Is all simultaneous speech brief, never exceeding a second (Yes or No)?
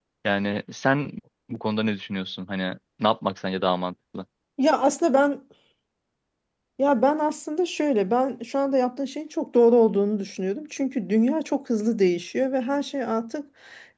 Yes